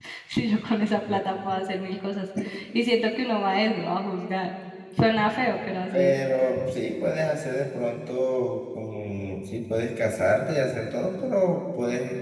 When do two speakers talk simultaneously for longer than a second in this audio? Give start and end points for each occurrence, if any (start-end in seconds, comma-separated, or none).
none